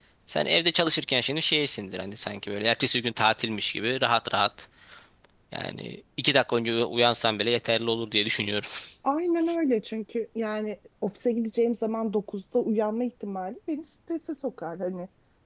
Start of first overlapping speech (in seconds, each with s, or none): none